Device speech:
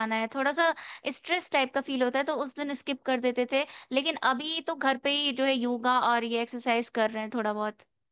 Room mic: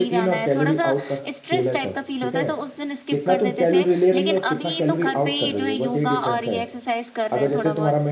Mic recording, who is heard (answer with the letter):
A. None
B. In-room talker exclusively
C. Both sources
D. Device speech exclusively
C